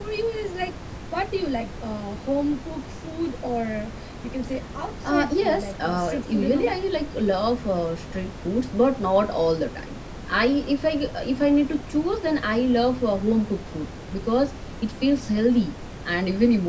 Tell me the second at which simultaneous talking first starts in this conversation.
5 s

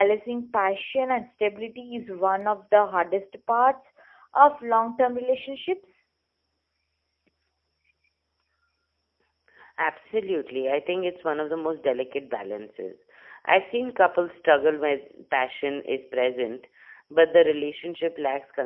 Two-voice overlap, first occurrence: none

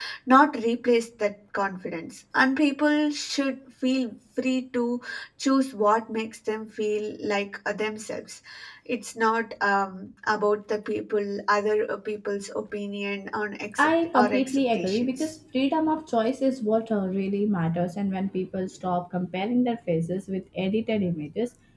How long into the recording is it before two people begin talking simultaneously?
14 s

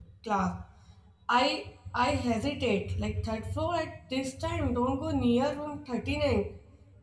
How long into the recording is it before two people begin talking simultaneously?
none

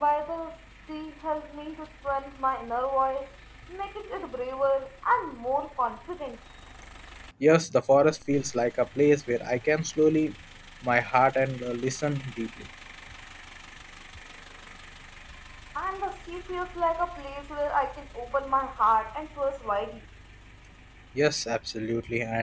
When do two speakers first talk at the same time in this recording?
none

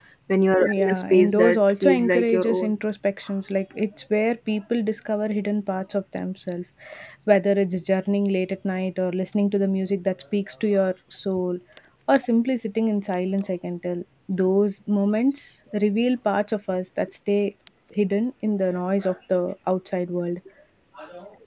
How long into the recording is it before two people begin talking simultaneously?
1 s

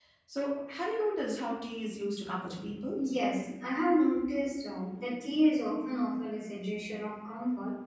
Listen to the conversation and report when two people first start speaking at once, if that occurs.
none

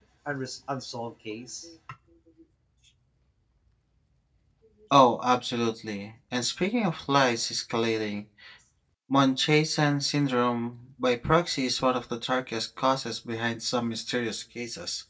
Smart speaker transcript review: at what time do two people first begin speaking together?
none

